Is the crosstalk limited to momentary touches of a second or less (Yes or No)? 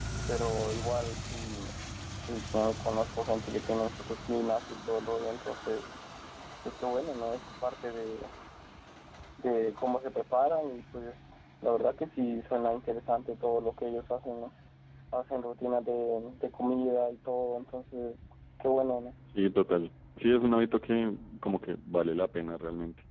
Yes